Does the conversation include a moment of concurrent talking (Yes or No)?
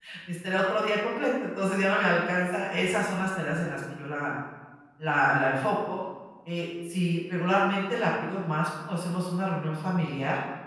No